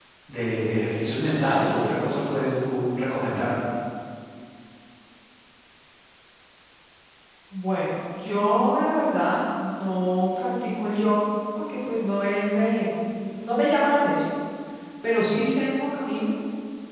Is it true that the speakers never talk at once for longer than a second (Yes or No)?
Yes